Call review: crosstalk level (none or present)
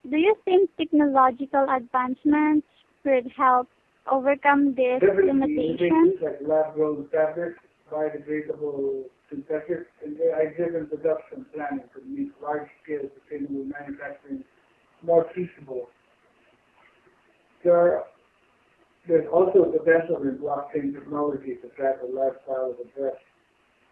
present